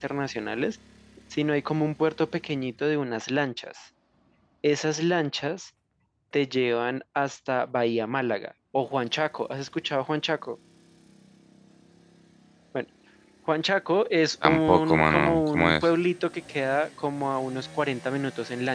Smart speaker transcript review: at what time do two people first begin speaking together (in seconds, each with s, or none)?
14.4 s